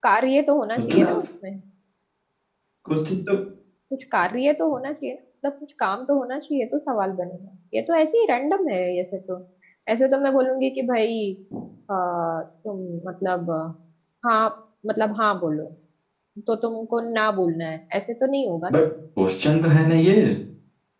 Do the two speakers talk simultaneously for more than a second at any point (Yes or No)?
No